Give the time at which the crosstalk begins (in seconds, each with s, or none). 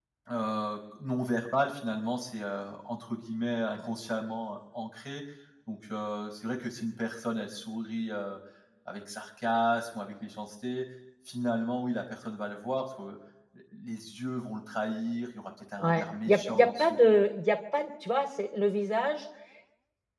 15.8 s